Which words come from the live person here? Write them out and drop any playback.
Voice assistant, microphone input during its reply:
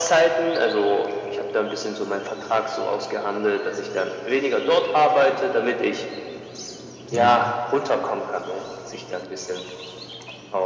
Mhm.

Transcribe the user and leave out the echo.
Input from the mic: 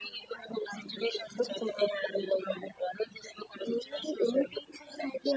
none

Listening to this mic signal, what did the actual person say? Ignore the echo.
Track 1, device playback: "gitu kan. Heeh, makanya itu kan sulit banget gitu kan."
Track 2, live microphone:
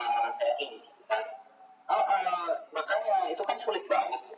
none

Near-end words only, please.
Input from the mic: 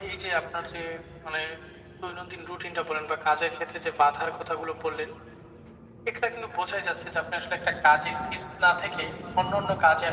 none

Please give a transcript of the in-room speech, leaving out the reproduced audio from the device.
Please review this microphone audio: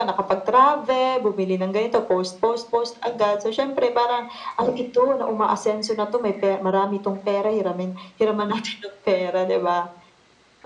none

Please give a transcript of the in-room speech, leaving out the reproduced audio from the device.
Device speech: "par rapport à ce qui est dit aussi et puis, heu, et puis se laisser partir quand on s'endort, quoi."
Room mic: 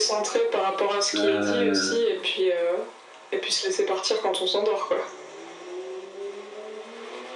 Heu,

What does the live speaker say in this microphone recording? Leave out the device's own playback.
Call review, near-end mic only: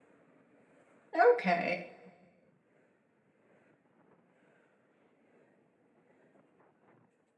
Okay

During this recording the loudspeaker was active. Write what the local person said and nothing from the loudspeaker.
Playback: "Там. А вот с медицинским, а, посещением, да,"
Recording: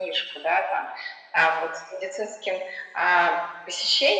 none

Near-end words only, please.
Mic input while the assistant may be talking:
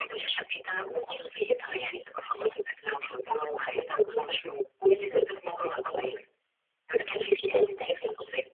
none

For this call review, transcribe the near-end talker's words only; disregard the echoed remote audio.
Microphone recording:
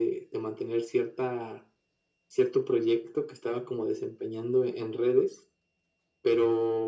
none

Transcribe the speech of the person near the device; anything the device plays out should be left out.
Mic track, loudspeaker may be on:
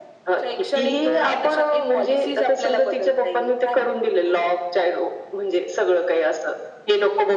none

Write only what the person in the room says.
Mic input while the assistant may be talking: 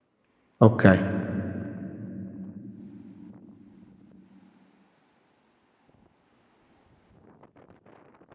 Okay.

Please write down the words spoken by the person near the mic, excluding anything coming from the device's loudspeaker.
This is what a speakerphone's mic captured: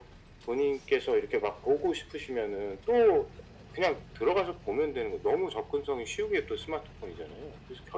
none

